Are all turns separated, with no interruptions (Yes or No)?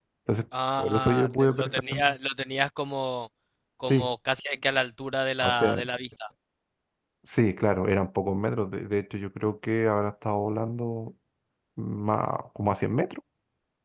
No